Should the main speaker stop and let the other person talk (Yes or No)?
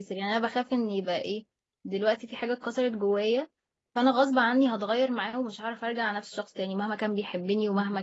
No